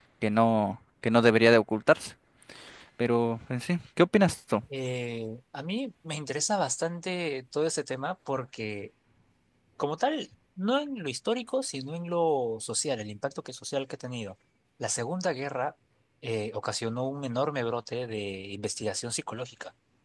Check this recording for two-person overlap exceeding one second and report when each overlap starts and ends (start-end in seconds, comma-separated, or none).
none